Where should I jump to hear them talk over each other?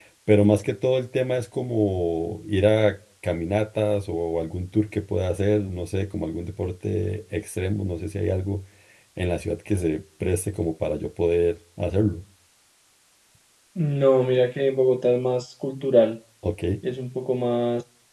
none

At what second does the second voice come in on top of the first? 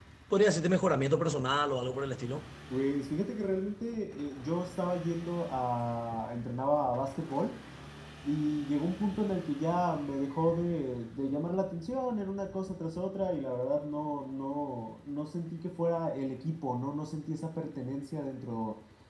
none

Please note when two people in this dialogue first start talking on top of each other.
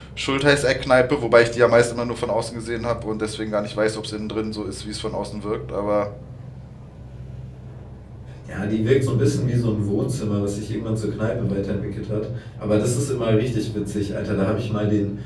none

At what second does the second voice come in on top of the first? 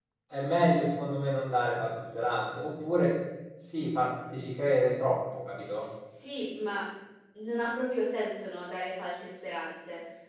none

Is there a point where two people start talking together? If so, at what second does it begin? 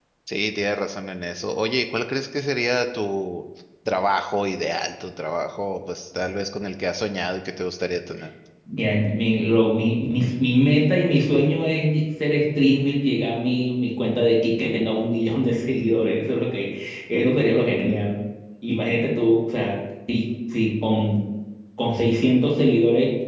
none

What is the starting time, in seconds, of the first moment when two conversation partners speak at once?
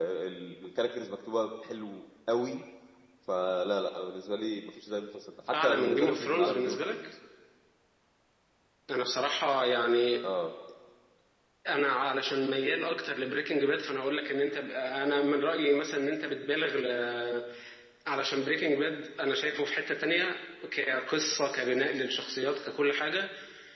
5.5 s

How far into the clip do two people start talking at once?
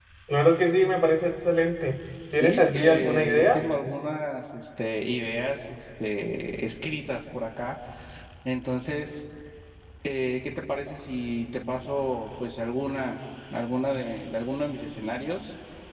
2.3 s

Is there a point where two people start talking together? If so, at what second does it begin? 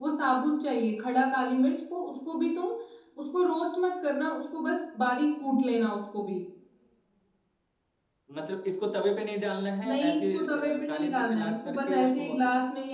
9.8 s

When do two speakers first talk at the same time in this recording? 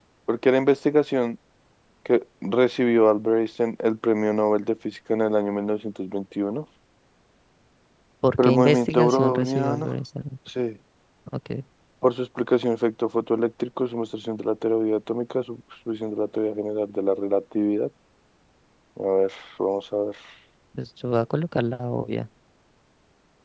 8.4 s

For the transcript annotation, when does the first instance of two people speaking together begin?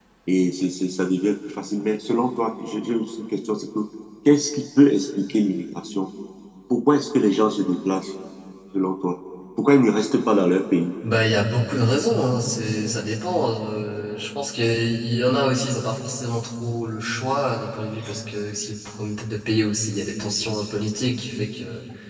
none

